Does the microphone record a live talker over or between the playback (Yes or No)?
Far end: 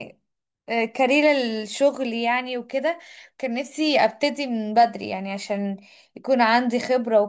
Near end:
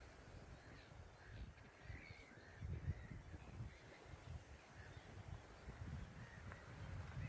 No